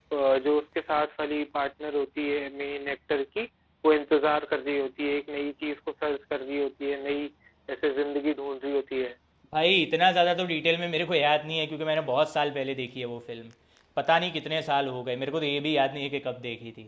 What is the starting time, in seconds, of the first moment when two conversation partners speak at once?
none

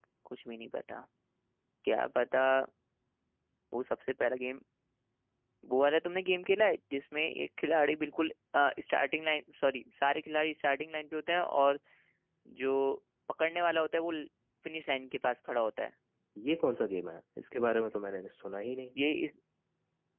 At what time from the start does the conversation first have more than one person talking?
none

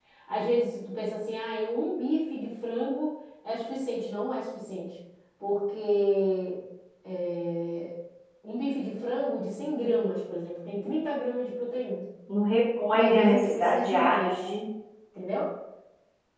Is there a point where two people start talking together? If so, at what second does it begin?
12.9 s

